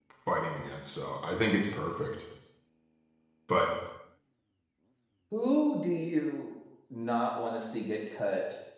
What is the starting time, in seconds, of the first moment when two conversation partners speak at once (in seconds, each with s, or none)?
none